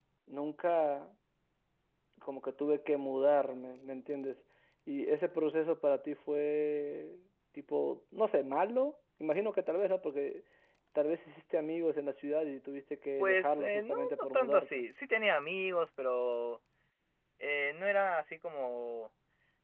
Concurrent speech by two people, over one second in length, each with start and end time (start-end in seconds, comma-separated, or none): 13.2-14.8